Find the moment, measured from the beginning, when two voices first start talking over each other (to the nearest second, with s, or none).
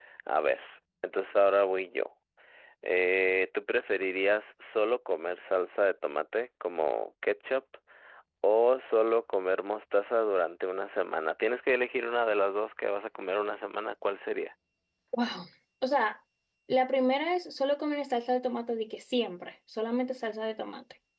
none